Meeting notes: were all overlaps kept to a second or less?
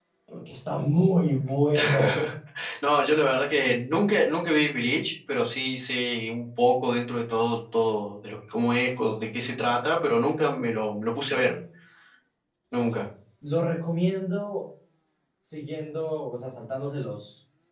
Yes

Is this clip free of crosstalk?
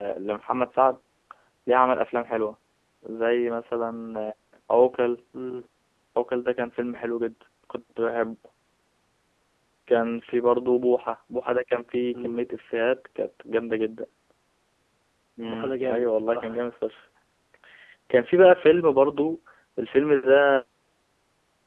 No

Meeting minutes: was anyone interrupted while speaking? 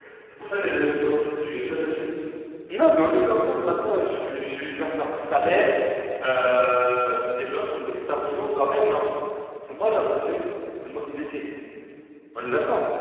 No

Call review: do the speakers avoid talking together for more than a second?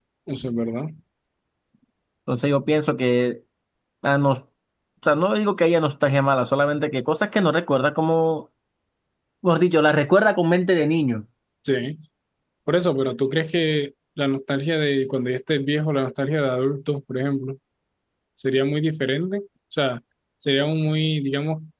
Yes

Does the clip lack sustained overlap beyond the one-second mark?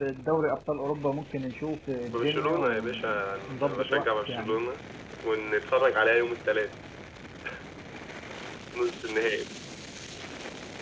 No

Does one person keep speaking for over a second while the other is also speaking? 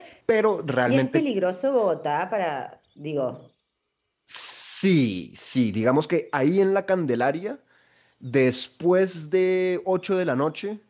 No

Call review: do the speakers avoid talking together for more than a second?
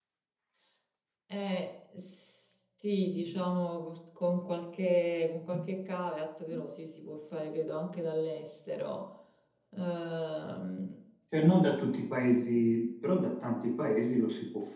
Yes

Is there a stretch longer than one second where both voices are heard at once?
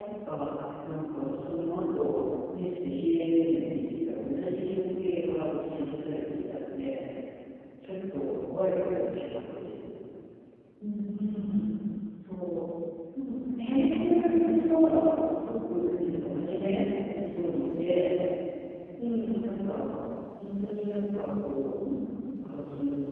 Yes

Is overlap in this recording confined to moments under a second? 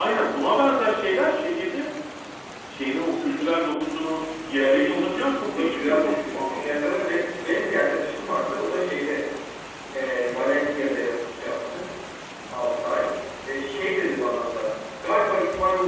No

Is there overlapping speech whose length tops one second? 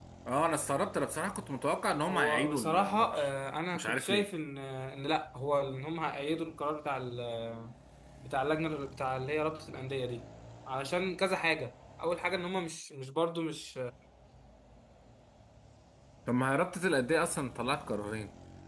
Yes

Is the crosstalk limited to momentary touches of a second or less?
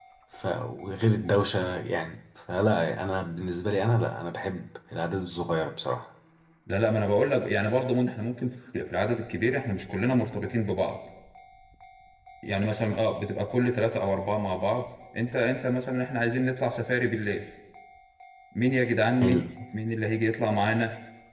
Yes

